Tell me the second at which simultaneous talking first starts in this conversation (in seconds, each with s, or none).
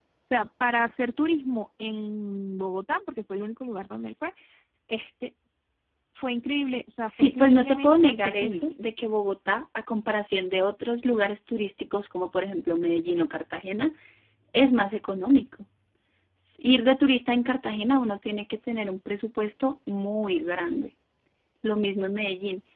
7.1 s